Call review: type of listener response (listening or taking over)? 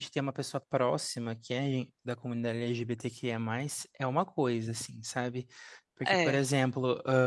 listening